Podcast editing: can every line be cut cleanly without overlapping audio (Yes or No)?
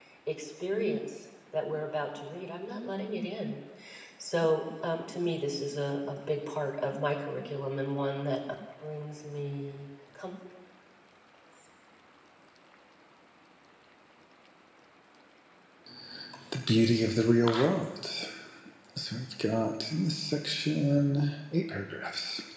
Yes